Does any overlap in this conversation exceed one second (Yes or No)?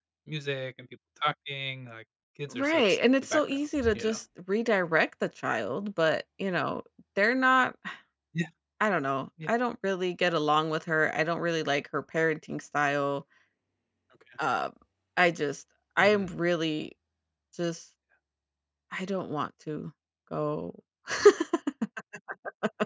Yes